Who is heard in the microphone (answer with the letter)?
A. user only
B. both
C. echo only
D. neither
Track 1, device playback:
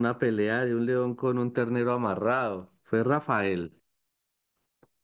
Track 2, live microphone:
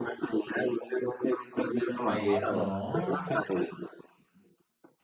B